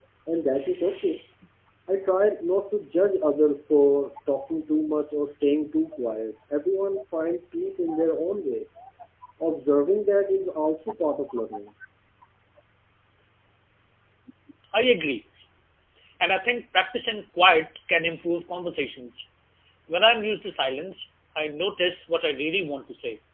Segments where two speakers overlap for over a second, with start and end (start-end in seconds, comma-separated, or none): none